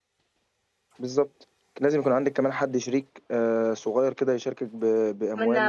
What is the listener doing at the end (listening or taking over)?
taking over